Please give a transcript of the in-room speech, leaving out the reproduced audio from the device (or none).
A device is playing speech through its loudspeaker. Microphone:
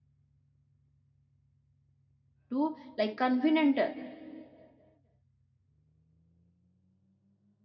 to like convenient